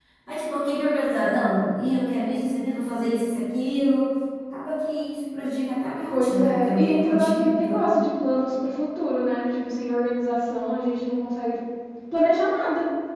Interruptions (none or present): present